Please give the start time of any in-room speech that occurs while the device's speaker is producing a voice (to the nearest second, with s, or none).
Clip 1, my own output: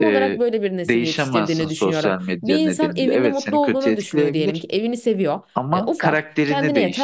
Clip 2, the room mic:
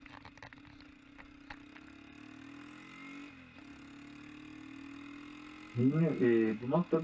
6 s